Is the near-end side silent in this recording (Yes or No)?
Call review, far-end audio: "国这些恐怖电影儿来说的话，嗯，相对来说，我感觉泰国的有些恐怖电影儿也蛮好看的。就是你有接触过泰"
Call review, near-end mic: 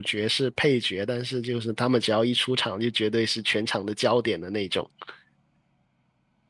No